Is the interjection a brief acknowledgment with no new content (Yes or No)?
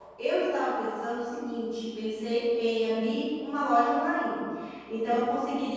Yes